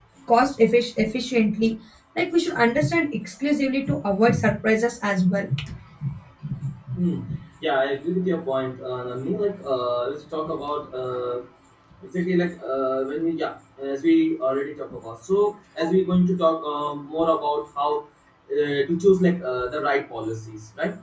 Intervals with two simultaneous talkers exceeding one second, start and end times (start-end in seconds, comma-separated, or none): none